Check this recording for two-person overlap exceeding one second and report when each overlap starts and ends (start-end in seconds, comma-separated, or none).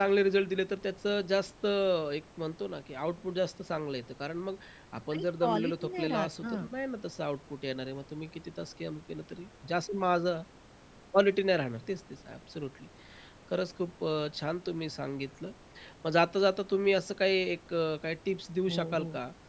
5.1-6.5